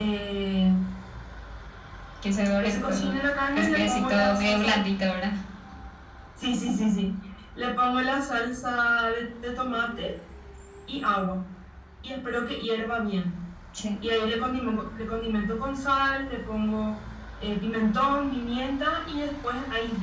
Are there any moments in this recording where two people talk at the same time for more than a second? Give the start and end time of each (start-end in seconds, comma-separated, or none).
3.5-4.8